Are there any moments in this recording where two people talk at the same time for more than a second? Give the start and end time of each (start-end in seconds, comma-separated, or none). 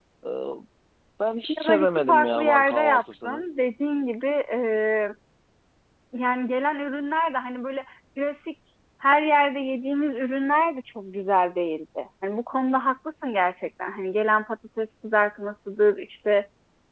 1.6-3.4